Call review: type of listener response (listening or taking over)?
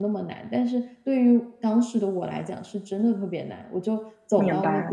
listening